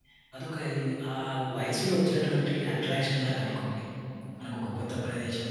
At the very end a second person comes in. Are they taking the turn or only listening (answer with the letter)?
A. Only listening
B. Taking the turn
A